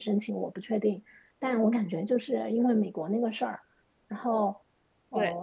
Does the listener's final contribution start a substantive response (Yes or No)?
No